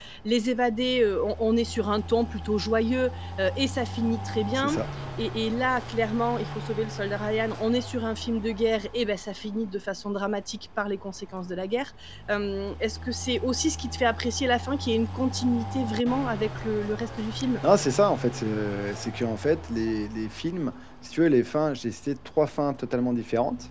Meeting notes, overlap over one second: none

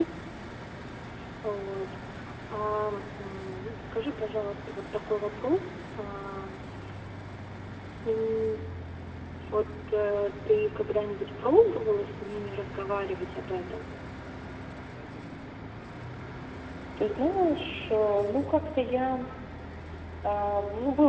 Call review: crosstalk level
none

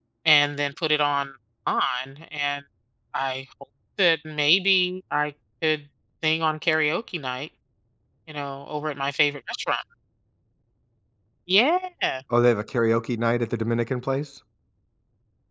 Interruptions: none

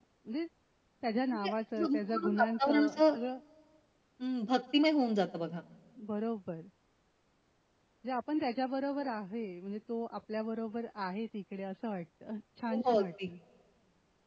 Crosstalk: present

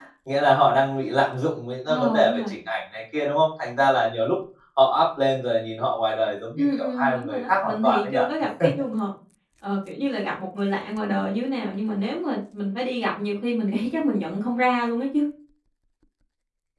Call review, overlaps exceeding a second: present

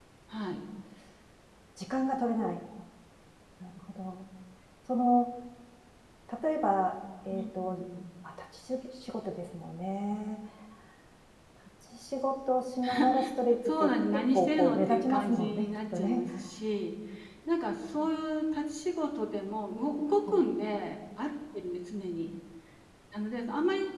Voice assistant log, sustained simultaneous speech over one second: present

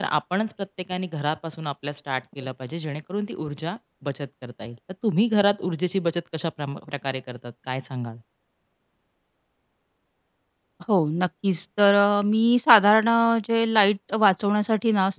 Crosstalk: none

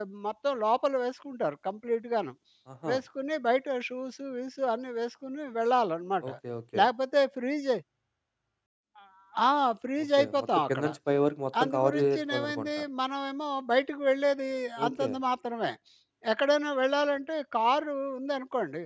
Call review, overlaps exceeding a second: present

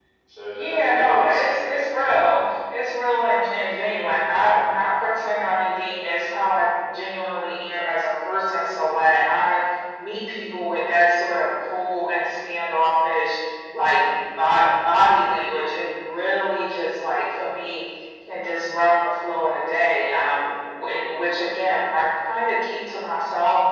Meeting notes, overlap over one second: present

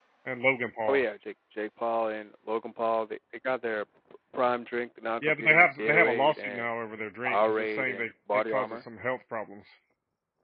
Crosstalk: present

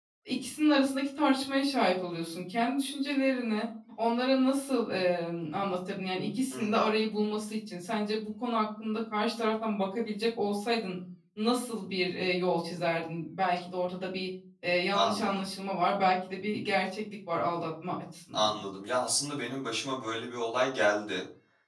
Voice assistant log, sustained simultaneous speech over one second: none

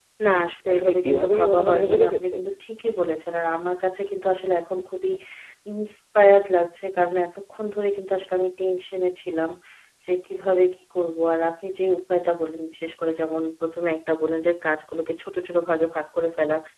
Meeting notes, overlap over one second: present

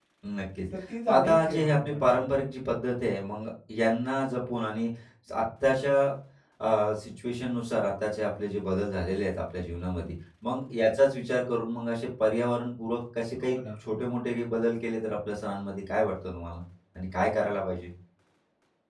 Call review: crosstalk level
present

